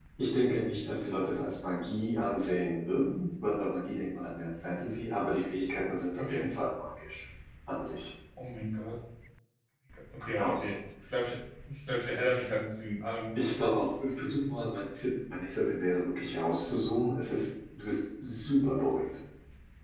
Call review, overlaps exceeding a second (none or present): none